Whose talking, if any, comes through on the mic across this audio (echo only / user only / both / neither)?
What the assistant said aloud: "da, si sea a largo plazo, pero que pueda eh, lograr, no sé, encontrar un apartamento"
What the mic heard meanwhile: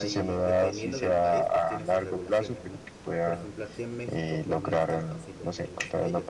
both